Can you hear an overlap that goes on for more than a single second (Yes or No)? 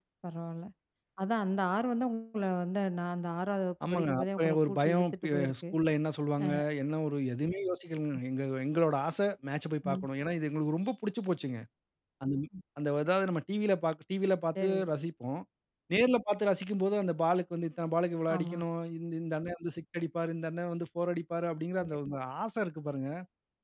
Yes